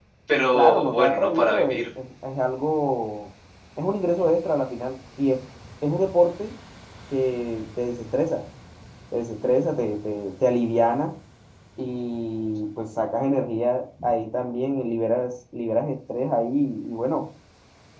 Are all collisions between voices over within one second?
No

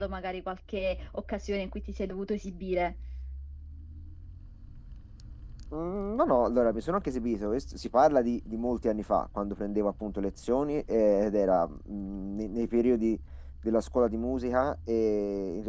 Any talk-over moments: No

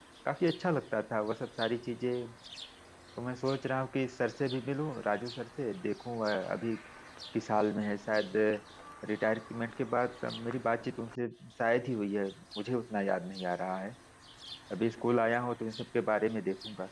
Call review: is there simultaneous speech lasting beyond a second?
No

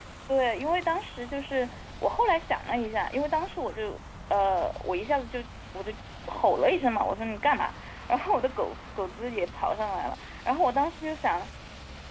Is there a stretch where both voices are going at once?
No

